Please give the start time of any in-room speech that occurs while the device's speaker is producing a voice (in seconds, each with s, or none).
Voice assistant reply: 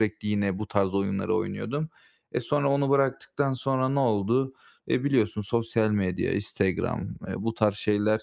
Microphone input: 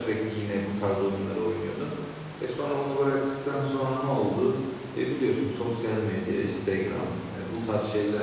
none